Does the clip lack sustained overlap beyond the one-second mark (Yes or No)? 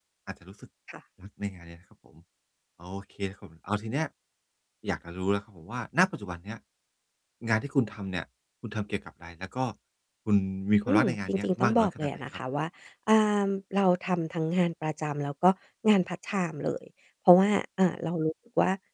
No